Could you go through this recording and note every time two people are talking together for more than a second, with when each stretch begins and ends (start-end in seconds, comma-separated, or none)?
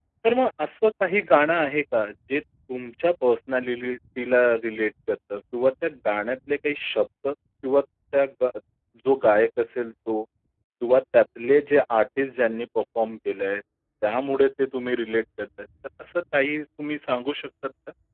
none